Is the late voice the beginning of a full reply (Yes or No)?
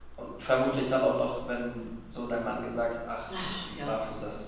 No